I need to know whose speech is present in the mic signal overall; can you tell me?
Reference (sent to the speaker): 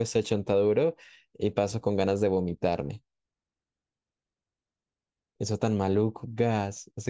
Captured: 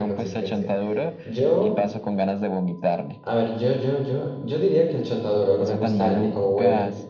both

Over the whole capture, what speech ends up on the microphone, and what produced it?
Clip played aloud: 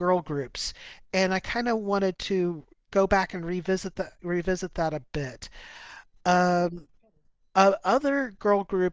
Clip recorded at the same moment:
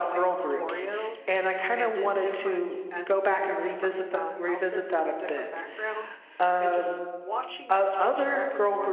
both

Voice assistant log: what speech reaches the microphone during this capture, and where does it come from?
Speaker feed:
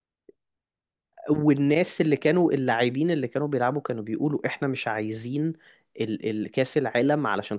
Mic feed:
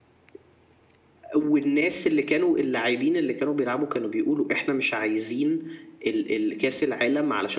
echo only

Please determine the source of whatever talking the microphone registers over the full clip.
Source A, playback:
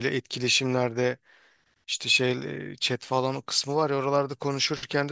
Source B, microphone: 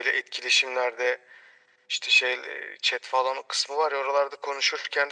echo only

